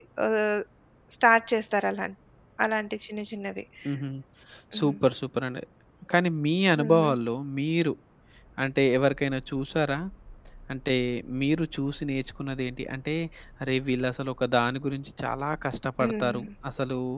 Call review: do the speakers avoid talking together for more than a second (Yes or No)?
Yes